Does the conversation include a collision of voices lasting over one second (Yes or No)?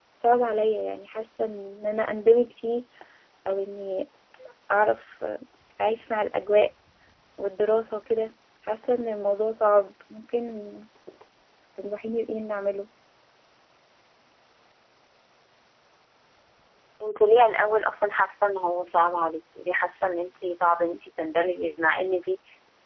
No